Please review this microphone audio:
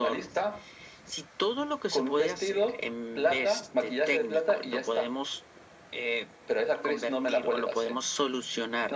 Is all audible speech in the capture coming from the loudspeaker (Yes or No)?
Yes